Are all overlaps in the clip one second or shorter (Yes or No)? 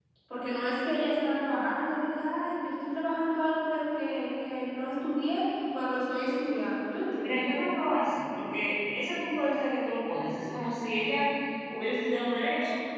Yes